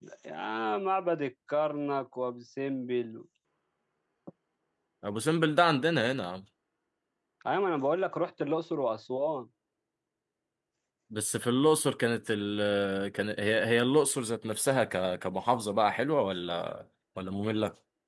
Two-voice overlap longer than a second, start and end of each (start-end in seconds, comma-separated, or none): none